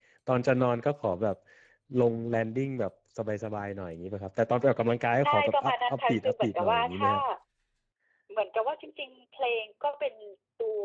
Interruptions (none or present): present